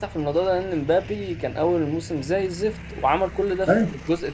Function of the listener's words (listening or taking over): listening